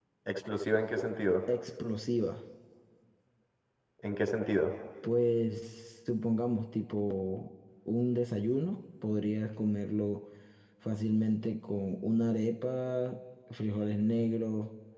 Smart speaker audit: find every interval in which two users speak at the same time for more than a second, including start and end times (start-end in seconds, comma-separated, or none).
none